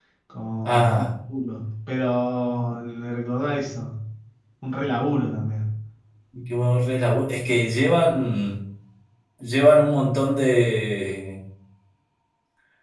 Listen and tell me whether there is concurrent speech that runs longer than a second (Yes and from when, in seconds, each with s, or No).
No